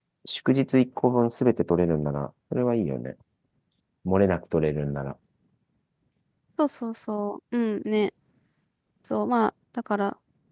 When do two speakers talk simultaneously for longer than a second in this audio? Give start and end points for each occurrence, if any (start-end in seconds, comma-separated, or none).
none